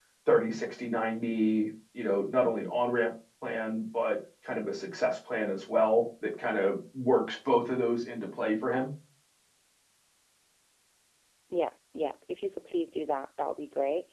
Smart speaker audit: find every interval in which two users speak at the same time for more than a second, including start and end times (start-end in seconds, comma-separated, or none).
none